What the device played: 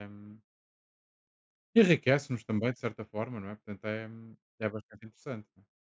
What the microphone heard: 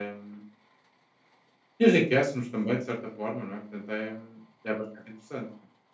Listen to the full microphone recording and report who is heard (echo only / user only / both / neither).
echo only